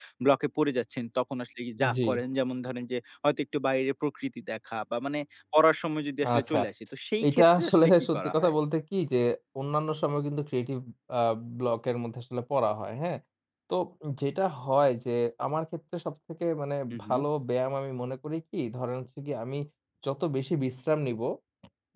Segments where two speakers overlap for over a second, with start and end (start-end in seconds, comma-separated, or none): 7.3-8.5